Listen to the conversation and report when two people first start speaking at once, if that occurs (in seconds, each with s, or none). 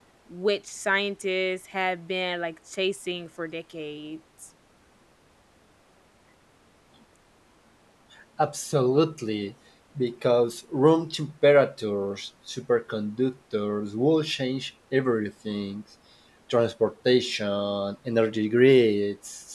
none